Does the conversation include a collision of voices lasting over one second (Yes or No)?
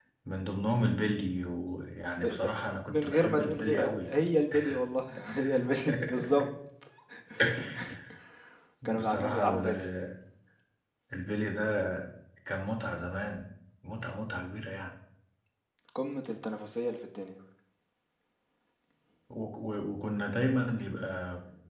Yes